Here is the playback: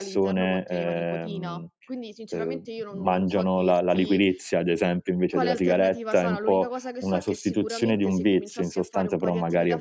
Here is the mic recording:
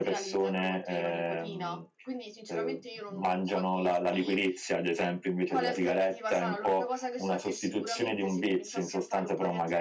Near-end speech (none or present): none